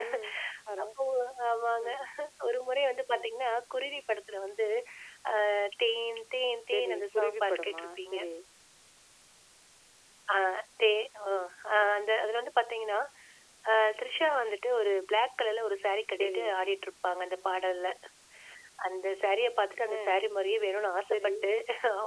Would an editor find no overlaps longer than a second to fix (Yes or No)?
No